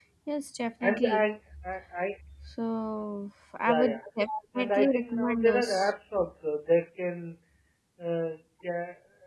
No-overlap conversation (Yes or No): No